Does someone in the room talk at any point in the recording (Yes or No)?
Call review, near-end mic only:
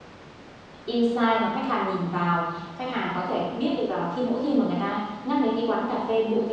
Yes